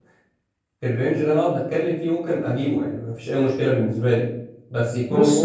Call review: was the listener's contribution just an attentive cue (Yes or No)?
No